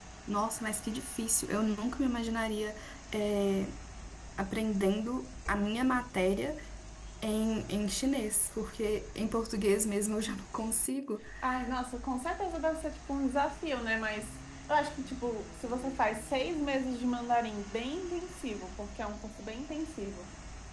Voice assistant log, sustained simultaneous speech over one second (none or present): none